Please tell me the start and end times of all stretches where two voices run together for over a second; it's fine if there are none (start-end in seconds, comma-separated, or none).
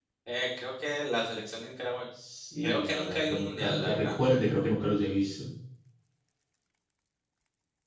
2.6-4.2